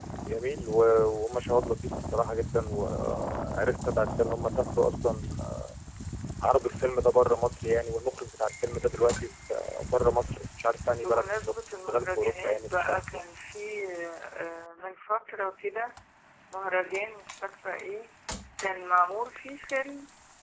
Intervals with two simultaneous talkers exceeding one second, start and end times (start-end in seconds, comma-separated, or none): 11.0-13.2